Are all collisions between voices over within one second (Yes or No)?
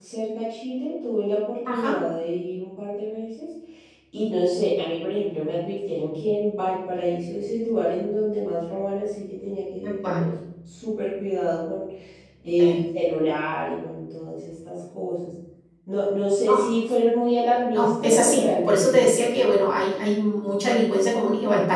No